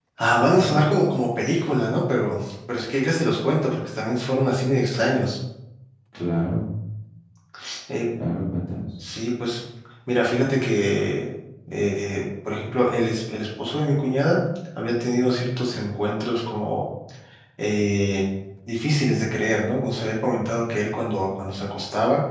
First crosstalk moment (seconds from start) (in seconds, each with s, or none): none